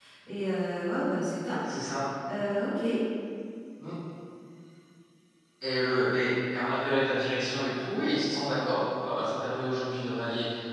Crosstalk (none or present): none